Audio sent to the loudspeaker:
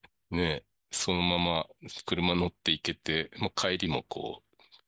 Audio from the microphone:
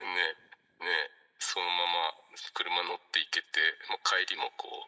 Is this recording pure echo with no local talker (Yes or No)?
Yes